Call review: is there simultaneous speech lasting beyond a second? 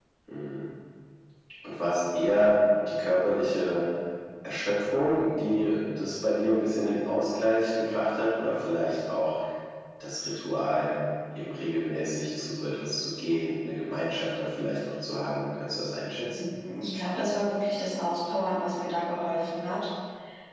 No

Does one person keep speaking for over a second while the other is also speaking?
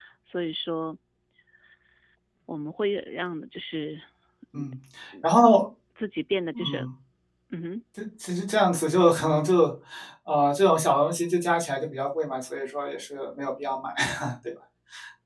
No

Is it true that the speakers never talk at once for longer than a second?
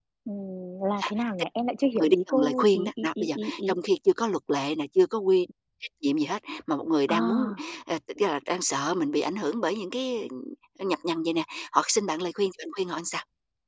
No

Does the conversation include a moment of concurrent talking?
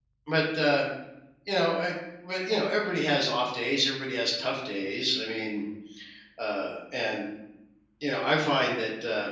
No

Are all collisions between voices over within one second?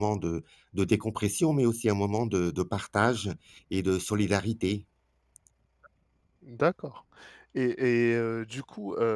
Yes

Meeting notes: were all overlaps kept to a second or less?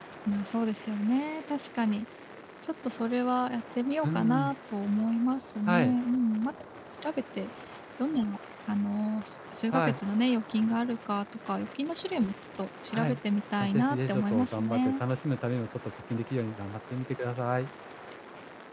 No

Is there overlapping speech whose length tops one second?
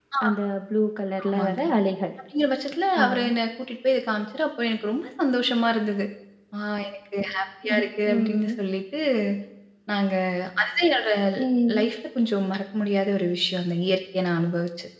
No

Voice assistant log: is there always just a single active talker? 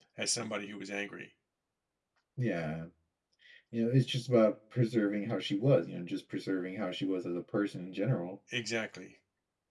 Yes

